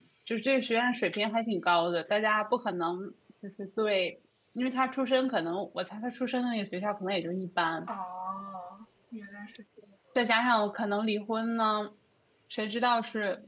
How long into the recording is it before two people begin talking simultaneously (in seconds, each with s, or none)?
none